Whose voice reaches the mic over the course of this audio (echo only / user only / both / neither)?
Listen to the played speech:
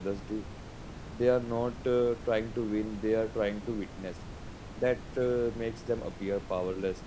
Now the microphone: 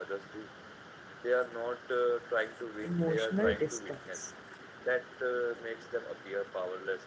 both